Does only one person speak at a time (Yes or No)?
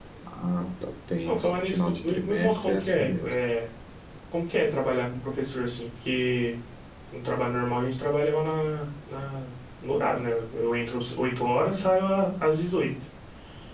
No